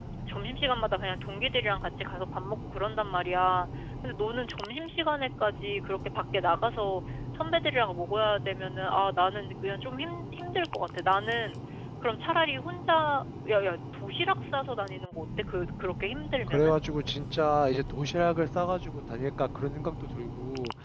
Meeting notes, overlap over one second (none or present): none